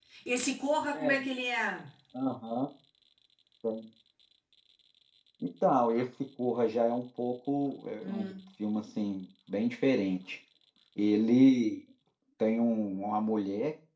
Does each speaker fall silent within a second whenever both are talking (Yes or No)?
Yes